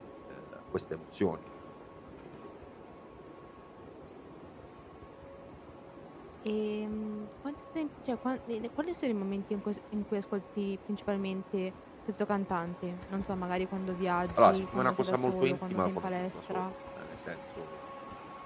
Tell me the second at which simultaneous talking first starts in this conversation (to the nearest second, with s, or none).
14 s